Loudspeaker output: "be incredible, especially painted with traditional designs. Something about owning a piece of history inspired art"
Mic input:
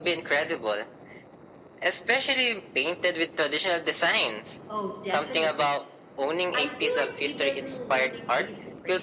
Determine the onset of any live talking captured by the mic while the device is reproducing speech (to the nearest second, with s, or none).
5 s